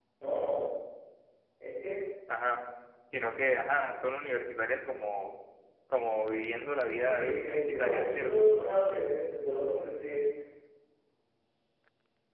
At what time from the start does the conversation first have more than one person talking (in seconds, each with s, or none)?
6.9 s